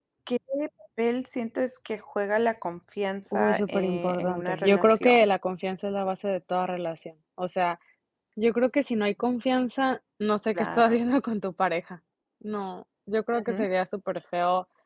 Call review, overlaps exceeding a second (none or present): present